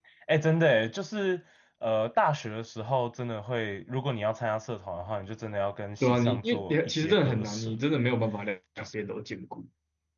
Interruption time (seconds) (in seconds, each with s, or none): 6.0 s